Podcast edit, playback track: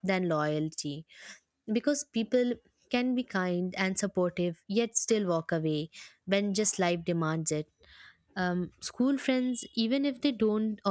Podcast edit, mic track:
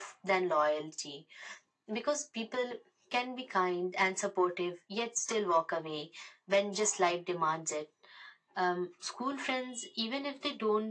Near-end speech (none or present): none